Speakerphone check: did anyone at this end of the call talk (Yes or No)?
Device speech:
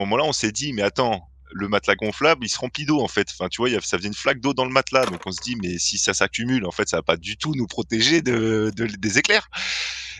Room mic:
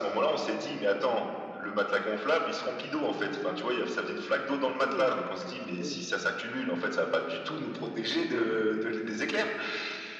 Yes